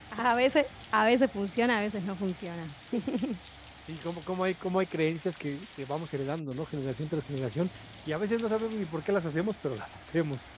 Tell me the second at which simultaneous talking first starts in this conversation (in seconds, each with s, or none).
none